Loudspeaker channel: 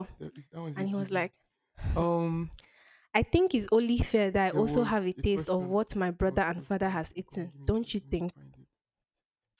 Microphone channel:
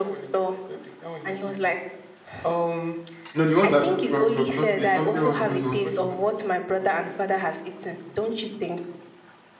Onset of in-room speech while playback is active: 3 s

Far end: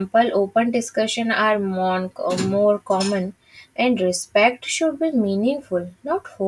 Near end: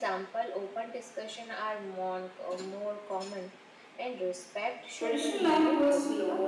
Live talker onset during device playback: 5 s

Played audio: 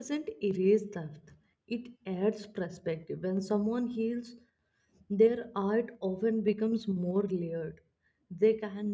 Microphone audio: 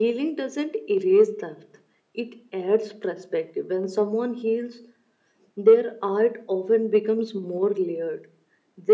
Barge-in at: none

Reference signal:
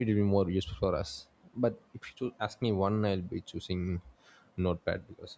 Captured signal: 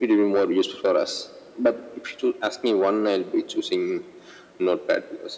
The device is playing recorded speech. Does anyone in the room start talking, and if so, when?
none

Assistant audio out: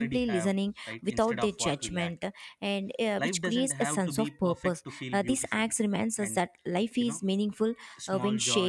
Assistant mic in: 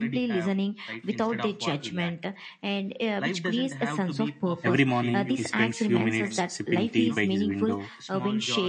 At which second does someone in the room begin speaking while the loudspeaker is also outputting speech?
5 s

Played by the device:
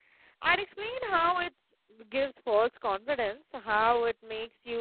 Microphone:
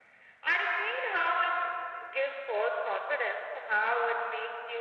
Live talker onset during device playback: none

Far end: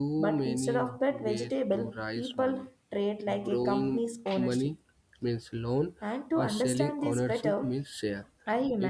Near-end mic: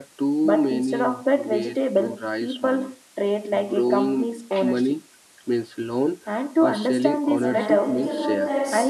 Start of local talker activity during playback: 7 s

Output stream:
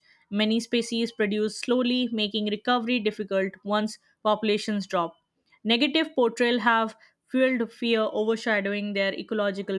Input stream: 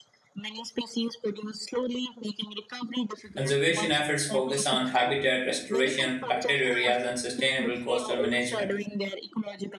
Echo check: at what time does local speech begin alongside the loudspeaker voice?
3 s

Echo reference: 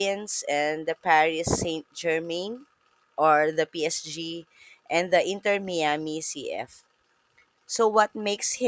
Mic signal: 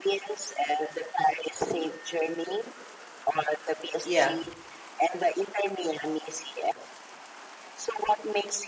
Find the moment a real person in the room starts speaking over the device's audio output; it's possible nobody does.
4 s

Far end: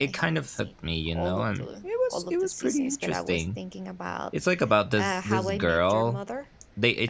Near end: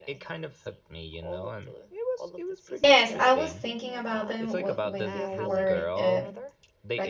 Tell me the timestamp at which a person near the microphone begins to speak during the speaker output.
3 s

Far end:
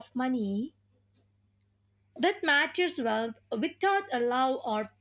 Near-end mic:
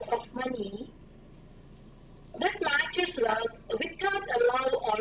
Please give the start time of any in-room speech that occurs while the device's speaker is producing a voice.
none

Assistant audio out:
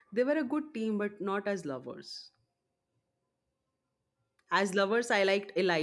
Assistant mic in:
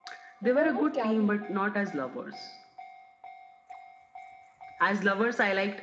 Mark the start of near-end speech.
0 s

